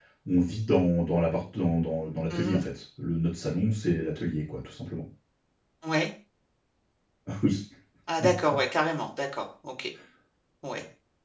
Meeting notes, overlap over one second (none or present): none